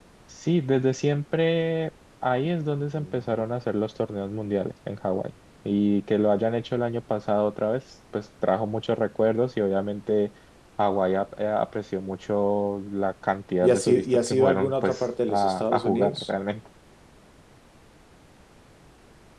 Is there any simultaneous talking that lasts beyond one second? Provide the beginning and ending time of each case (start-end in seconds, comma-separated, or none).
13.6-16.3